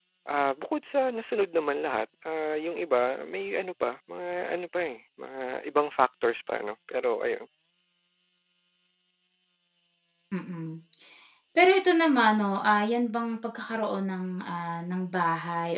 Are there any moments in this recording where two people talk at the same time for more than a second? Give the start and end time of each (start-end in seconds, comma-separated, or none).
none